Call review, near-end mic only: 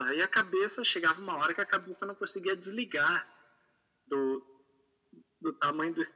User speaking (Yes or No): No